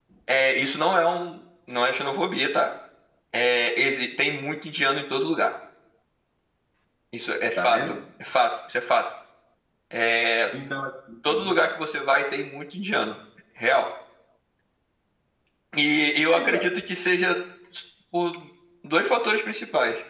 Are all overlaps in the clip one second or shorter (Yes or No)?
Yes